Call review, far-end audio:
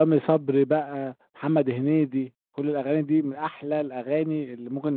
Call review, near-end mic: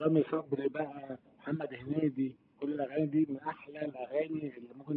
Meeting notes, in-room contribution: none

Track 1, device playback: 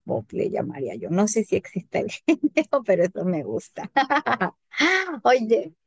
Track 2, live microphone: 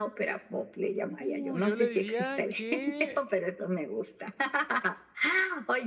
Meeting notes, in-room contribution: present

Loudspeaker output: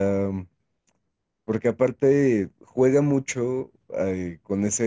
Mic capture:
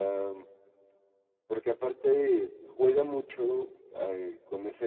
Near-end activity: none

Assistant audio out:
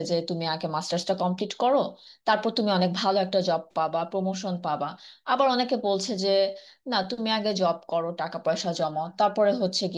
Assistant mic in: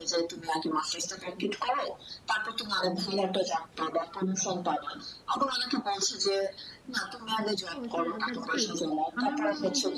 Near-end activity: present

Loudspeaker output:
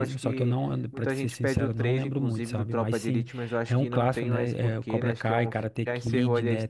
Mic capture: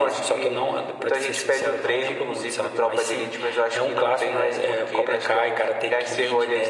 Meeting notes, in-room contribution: none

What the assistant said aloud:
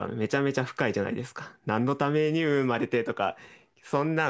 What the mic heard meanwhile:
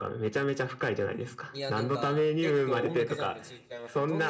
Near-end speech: present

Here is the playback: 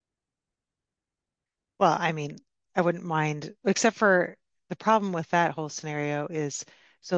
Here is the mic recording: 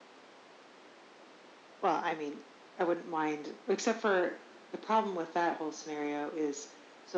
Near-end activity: none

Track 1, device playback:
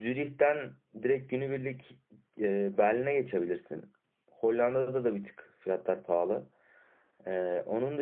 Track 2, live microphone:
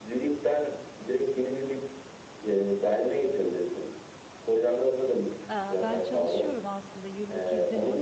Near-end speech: present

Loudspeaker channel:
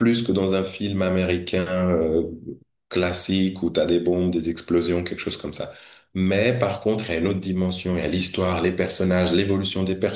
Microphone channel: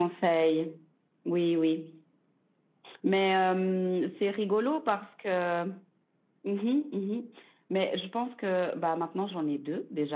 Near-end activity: present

